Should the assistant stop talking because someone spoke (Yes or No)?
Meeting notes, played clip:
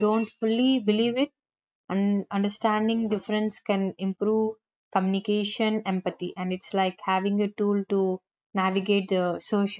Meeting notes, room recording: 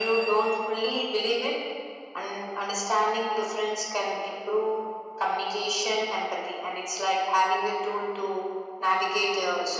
No